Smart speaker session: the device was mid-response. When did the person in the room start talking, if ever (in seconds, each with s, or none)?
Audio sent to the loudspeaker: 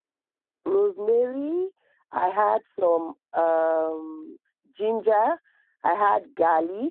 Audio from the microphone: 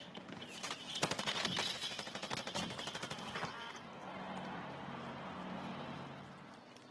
none